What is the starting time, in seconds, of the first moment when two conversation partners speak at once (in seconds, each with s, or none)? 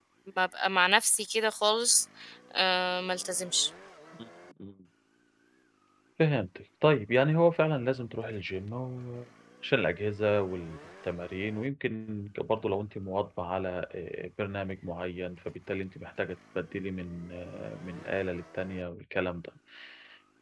none